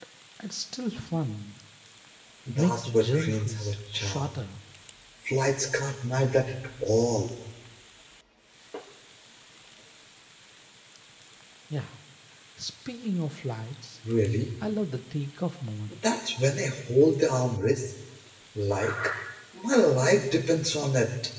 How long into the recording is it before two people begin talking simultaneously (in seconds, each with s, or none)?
2.5 s